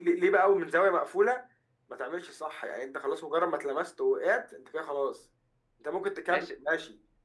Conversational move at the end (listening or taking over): listening